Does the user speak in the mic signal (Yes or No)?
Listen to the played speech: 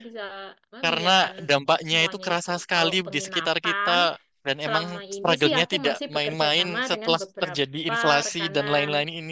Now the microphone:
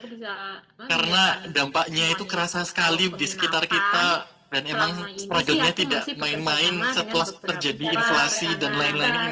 Yes